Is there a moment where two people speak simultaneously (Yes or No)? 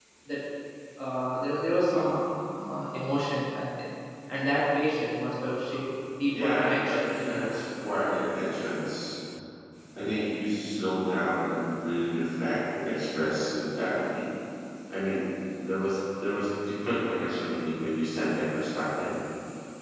Yes